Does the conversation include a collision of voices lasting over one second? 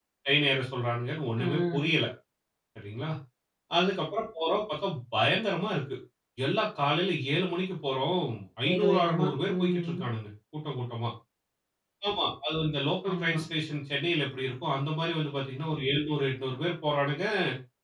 Yes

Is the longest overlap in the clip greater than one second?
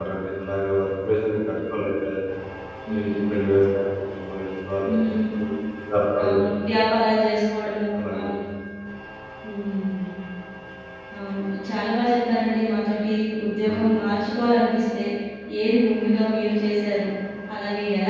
No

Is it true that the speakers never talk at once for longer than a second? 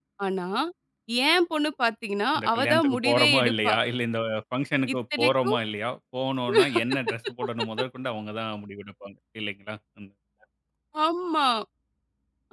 No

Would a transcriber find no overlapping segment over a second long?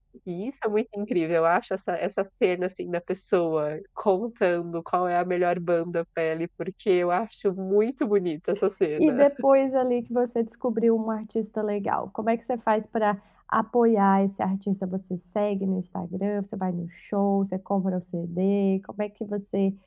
Yes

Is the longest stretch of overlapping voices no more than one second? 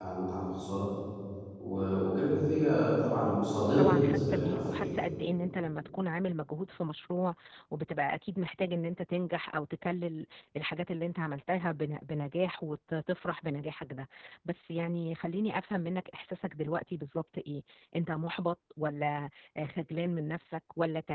No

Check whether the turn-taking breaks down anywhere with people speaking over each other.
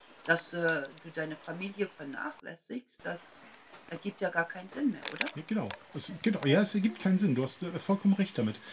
No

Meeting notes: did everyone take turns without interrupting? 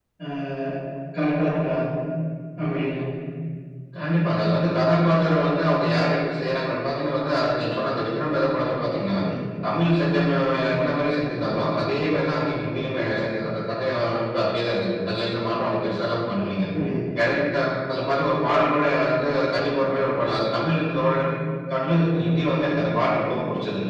Yes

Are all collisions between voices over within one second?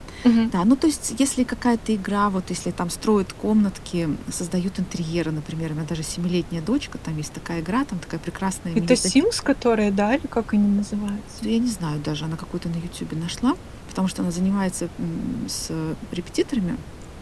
Yes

